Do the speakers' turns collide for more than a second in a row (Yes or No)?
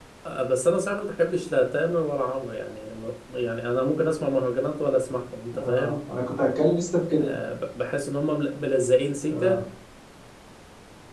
No